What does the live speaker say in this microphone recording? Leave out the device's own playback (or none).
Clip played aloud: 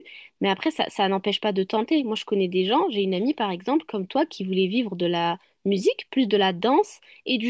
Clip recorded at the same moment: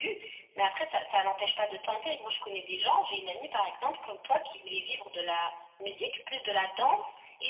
none